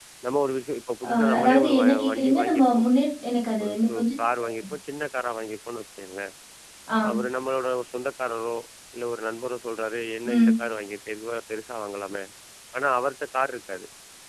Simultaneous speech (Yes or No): Yes